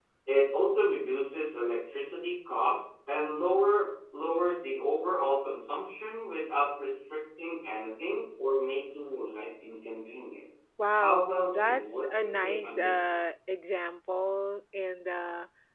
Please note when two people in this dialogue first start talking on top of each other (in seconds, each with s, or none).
10.9 s